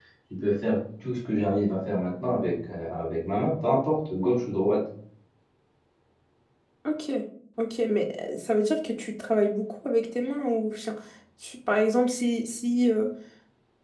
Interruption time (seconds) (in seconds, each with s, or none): none